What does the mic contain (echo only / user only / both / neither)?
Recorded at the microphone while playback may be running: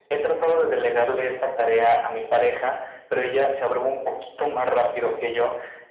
echo only